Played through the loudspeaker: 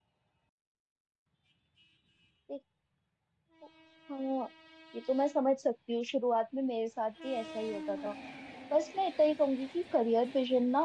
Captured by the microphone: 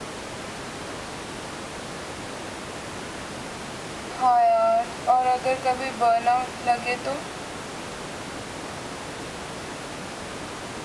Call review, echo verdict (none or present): none